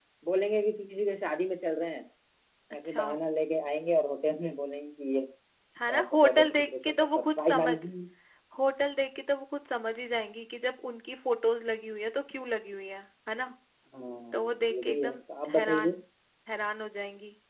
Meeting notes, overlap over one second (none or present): present